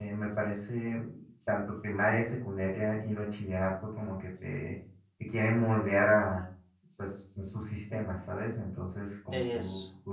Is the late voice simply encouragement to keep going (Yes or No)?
Yes